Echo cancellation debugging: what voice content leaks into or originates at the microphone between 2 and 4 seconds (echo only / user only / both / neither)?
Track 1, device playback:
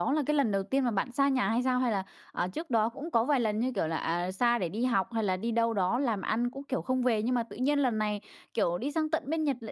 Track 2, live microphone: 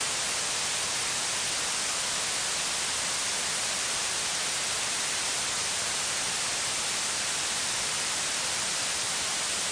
neither